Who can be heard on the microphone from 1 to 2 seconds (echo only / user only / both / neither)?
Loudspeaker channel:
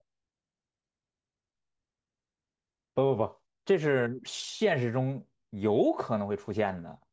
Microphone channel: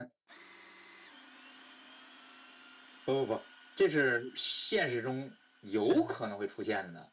neither